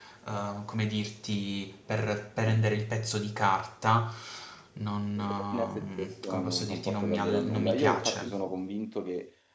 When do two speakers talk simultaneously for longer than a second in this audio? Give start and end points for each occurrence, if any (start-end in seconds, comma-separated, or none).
5.5-8.4